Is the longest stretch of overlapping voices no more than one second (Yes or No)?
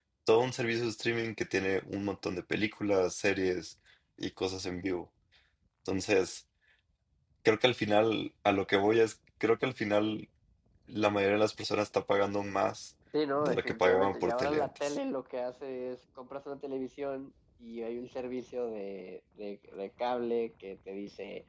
No